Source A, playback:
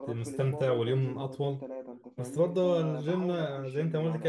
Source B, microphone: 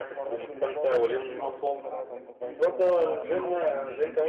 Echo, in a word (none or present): present